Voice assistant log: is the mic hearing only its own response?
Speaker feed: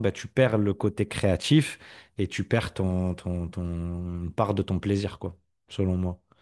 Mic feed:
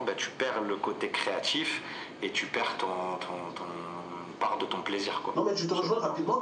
No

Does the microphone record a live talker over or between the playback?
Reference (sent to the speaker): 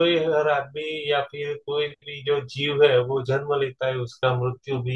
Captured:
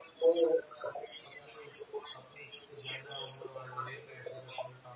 Yes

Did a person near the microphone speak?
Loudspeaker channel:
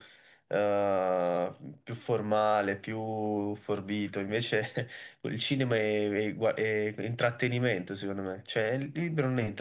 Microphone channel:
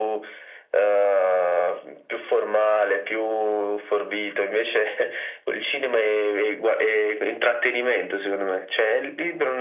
No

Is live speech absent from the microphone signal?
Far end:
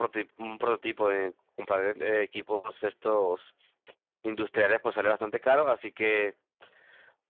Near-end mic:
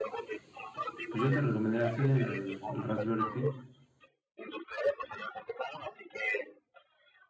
No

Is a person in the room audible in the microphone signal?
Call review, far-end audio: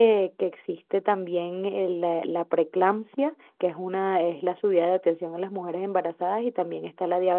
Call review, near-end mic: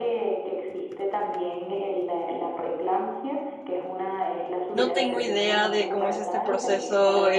Yes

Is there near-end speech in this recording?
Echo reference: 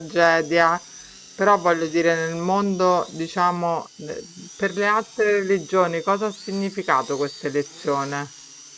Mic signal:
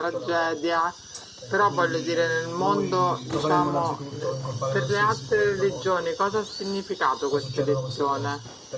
Yes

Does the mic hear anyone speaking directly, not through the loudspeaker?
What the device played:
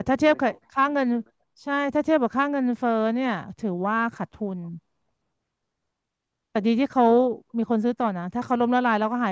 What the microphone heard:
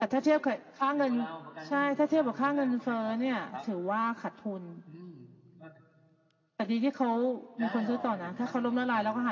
Yes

